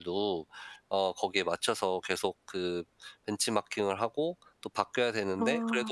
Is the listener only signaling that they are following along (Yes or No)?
Yes